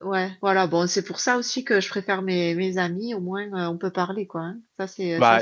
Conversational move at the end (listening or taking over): taking over